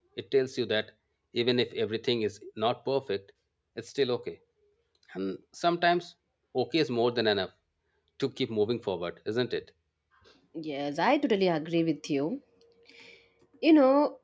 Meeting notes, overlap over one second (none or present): none